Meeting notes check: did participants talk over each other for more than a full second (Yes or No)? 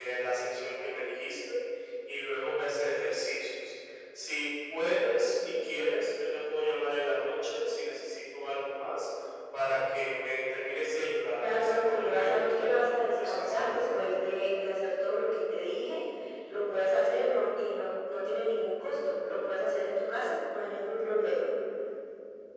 Yes